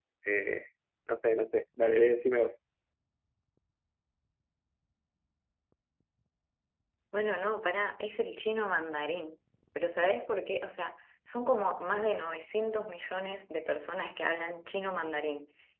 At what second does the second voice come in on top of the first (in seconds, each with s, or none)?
none